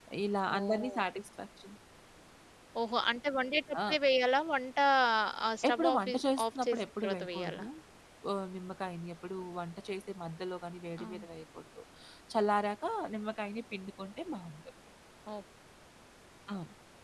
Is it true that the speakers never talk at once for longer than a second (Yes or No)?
No